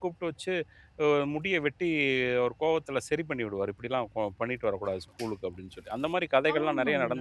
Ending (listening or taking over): taking over